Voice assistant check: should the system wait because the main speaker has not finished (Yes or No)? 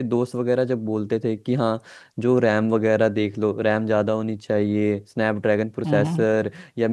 Yes